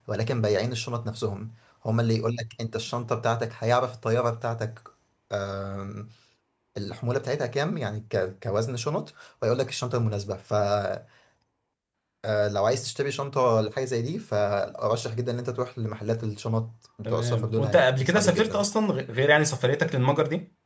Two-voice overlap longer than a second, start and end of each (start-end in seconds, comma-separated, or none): 17.1-18.6